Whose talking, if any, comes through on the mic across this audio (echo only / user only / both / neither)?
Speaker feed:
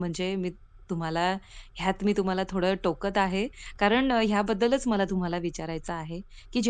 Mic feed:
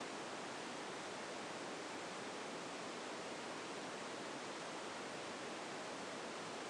neither